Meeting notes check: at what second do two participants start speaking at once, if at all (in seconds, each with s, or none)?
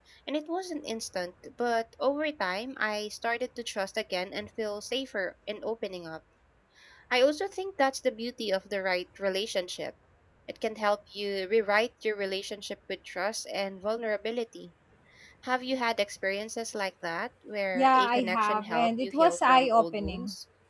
17.8 s